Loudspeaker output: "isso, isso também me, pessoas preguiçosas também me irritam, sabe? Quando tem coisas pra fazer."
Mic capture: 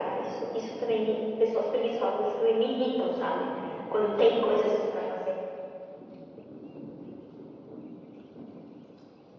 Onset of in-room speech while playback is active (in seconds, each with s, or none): none